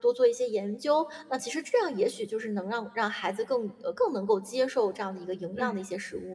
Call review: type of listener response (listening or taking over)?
taking over